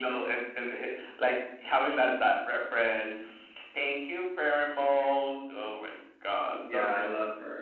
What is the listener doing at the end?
taking over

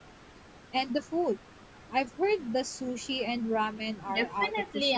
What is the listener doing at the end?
taking over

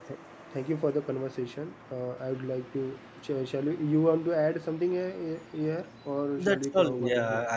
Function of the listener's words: taking over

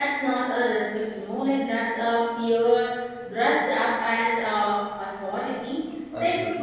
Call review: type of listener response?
listening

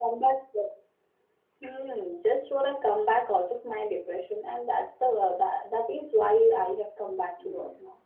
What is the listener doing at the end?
taking over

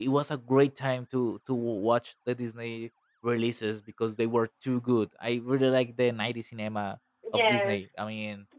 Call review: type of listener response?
listening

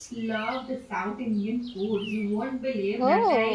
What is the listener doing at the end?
listening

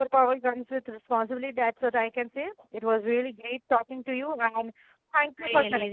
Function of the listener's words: taking over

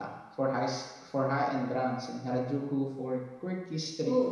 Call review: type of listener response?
taking over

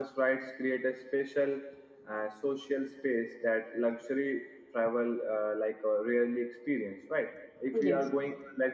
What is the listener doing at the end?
listening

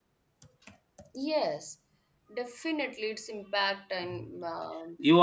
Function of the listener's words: taking over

